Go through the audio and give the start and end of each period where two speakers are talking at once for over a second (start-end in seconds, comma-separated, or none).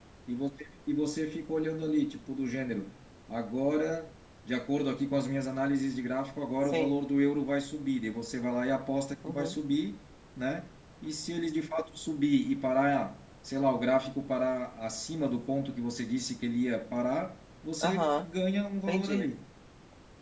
none